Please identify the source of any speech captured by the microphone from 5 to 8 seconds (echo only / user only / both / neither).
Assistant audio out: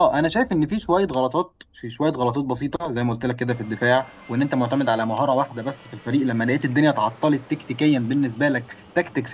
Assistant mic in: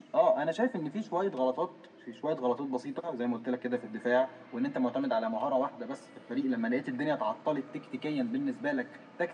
echo only